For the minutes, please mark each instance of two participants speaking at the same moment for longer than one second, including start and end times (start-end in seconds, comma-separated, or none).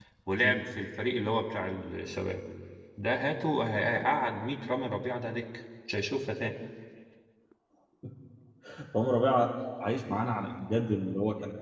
none